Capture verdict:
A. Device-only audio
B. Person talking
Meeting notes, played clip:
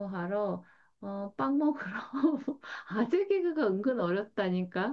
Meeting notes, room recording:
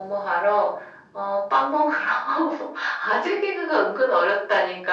A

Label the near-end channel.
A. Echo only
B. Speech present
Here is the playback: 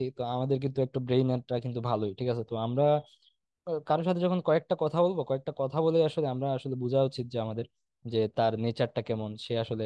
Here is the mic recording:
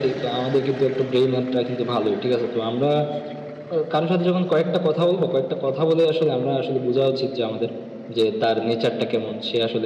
A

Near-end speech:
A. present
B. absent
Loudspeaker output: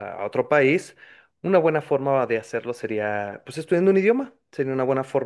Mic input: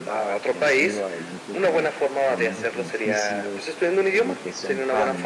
A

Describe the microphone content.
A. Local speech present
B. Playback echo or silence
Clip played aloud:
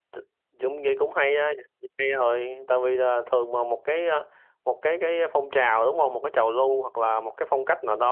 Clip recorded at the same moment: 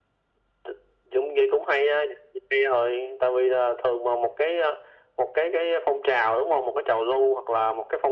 B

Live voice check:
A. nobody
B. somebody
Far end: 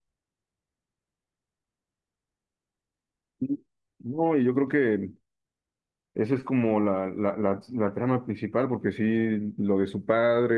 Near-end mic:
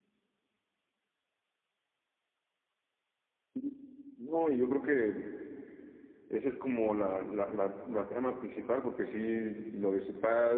A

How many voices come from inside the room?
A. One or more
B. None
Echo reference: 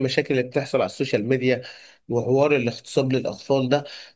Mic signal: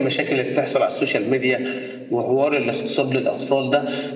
B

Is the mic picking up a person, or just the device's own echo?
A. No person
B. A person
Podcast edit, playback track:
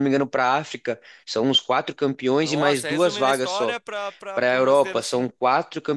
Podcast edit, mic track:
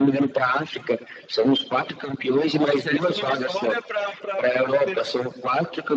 A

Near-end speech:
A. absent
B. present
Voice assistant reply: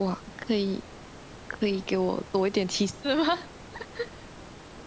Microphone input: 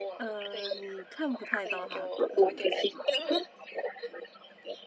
B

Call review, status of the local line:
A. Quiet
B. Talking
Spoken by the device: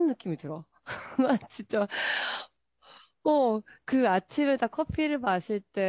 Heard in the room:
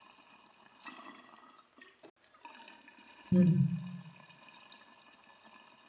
B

